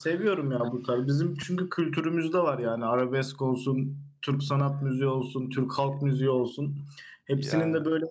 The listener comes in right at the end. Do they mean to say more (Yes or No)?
No